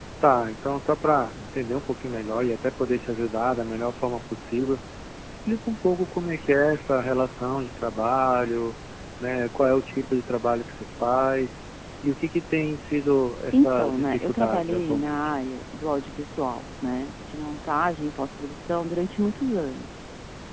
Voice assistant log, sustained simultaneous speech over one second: present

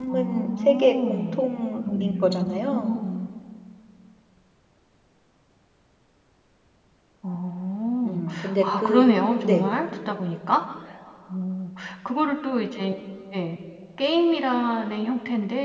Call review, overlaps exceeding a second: present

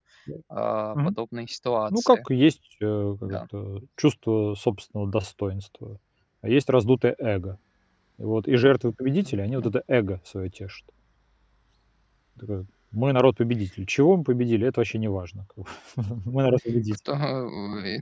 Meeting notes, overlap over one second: none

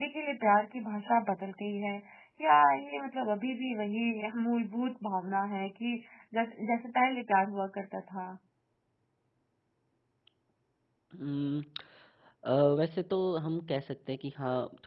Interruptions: none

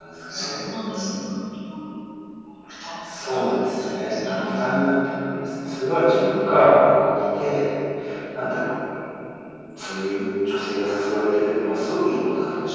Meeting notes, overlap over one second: present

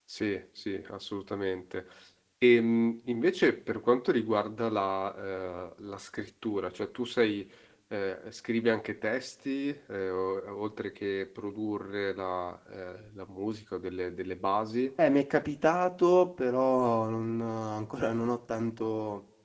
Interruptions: none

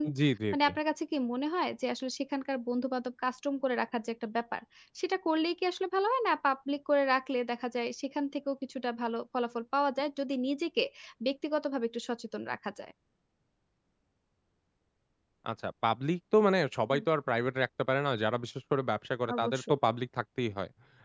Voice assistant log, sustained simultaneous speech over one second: none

